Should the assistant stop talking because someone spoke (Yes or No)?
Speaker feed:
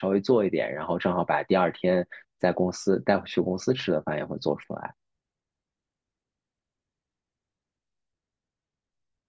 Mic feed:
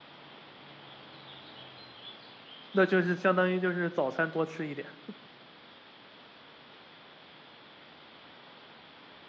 Yes